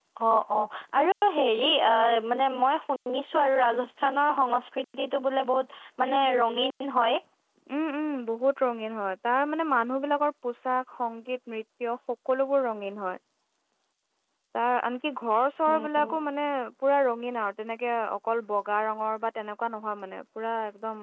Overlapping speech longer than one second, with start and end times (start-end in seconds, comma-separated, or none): none